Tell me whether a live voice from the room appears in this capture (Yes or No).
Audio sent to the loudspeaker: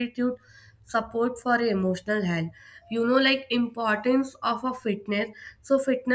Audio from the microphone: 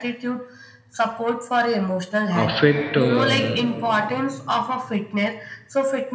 Yes